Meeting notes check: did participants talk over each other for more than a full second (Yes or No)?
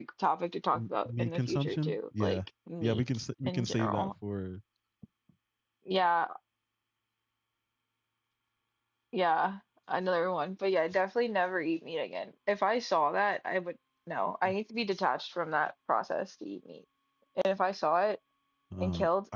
Yes